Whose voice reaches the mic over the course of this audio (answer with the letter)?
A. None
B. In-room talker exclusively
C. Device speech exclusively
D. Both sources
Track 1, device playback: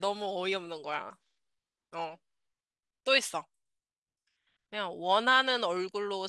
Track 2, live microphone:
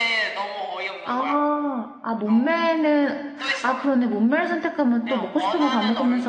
D